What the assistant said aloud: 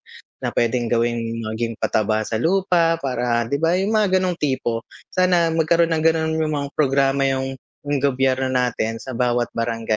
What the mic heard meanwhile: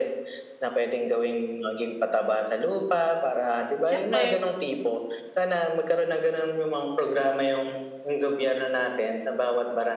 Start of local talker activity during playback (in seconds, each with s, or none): 3.8 s